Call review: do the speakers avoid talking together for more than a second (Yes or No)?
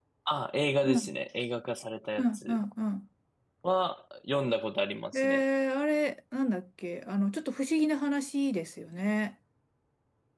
Yes